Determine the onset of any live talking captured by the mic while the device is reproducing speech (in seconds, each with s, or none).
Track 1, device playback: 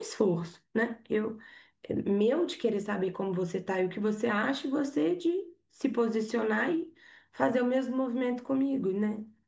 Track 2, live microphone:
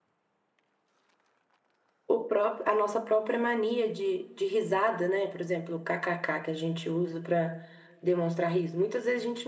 2.1 s